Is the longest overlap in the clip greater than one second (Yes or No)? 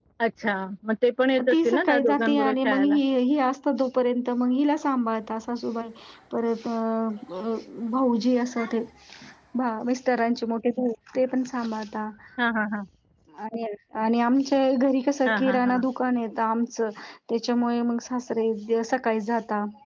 Yes